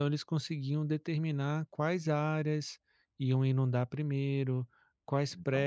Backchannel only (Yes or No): Yes